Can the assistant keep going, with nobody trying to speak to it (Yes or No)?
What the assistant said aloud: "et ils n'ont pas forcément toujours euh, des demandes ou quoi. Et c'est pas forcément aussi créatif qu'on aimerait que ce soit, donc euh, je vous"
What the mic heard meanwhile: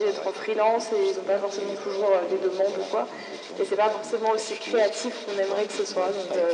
No